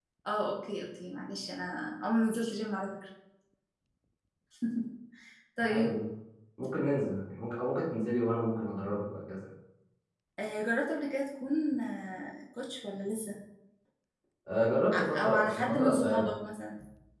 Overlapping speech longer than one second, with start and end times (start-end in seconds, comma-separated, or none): 14.9-16.3